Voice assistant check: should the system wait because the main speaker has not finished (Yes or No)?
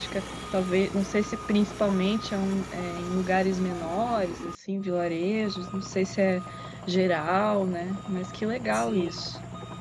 No